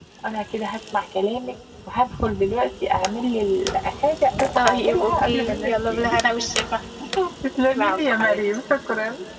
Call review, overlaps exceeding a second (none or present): present